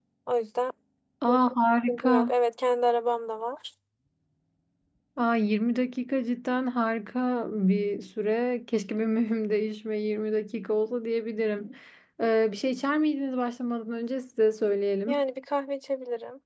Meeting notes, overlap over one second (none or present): none